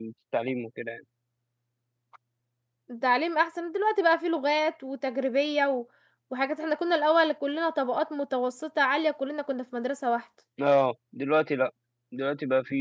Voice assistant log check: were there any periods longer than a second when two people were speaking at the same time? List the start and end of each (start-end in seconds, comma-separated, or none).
none